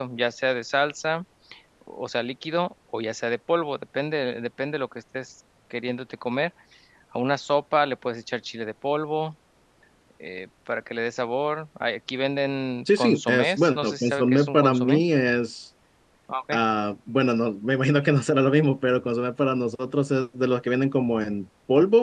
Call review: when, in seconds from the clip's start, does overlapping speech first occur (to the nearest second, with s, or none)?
13 s